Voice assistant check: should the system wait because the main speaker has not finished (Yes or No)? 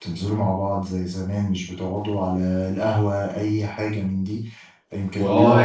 Yes